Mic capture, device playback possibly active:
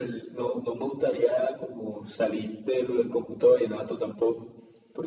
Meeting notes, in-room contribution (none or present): none